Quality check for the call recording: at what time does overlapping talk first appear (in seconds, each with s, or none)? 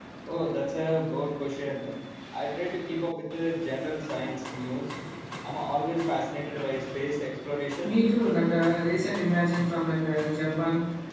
none